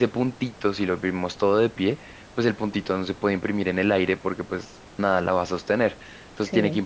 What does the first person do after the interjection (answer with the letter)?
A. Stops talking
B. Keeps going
B